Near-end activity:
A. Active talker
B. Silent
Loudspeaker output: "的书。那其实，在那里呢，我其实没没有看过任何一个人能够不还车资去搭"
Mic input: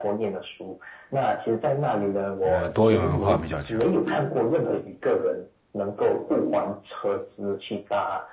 A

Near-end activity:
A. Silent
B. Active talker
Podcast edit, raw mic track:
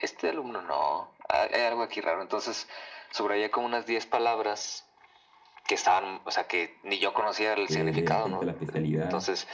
B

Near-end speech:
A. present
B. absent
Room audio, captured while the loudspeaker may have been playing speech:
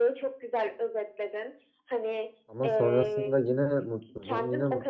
A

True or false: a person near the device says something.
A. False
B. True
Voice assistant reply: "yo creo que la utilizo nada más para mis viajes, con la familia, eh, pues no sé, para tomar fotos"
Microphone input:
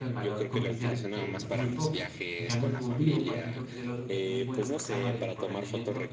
B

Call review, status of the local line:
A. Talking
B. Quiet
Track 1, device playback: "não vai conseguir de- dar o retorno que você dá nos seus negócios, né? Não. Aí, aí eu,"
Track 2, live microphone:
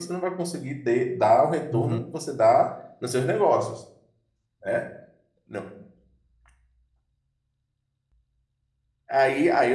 A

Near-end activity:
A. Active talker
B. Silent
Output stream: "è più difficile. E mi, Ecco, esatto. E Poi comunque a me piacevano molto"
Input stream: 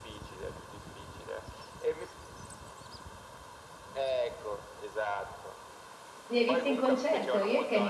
A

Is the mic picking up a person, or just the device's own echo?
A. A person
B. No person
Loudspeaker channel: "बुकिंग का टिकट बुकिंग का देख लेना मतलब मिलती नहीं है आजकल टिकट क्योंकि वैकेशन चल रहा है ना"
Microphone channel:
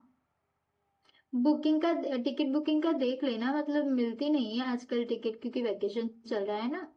B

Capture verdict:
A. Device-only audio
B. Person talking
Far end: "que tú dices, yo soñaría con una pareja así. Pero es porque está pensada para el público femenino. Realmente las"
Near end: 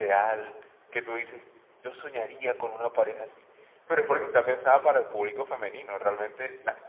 A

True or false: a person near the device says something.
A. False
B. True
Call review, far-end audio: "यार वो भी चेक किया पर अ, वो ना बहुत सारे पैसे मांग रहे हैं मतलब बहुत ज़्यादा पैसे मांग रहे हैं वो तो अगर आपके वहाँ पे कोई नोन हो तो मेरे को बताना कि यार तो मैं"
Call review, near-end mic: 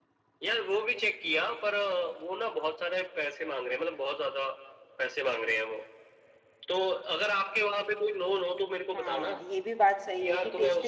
B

